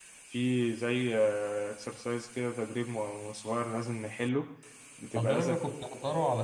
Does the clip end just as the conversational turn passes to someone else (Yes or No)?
Yes